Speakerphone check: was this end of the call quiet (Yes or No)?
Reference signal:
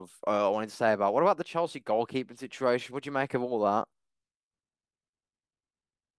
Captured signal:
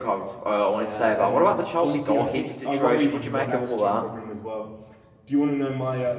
No